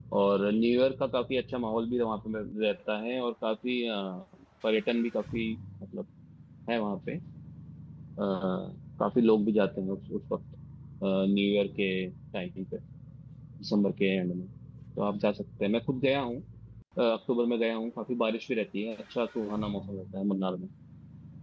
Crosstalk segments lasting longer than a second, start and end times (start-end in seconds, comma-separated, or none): none